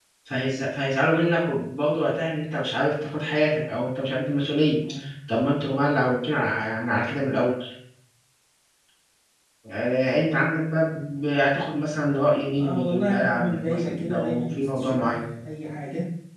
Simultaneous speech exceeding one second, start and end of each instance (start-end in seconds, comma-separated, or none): 12.6-15.1